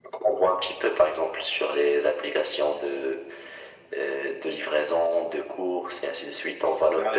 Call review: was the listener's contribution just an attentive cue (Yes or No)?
No